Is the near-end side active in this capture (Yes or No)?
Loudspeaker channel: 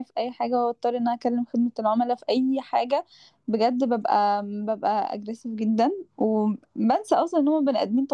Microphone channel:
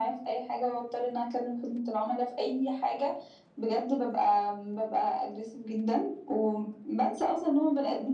No